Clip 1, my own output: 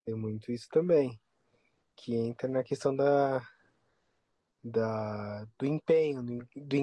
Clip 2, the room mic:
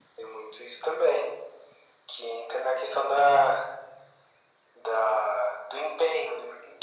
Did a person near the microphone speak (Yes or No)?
No